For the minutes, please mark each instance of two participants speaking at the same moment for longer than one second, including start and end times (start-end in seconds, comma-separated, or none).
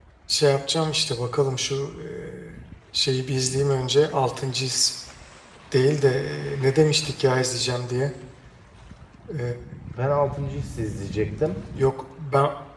none